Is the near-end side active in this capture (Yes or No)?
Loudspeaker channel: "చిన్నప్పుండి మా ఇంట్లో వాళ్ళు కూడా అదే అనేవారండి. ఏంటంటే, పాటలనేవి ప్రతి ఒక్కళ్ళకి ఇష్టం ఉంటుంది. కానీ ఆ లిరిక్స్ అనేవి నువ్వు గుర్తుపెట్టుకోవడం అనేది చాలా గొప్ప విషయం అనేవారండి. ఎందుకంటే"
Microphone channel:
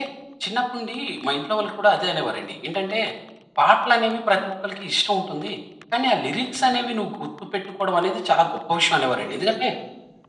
Yes